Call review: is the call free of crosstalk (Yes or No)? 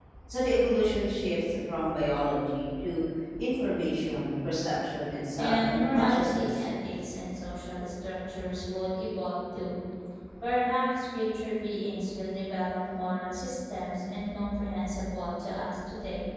No